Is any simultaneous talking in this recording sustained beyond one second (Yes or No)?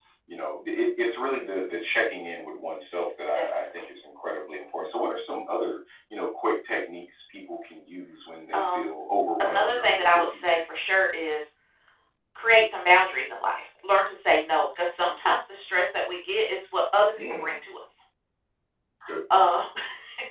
Yes